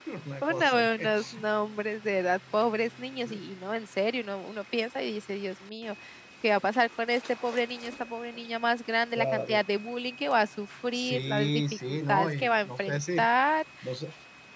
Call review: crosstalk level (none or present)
present